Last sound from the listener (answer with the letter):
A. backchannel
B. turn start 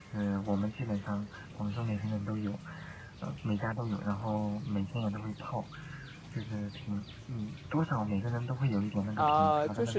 B